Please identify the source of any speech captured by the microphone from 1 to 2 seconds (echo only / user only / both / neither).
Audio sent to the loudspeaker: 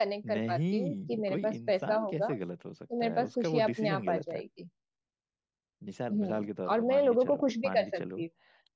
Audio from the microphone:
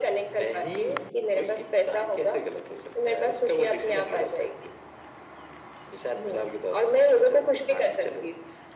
echo only